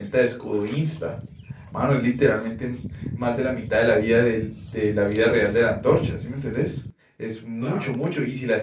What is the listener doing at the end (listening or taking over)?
listening